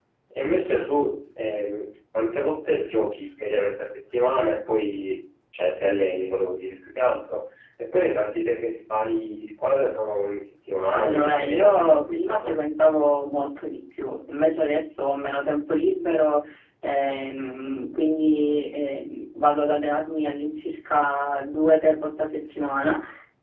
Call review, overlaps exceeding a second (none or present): present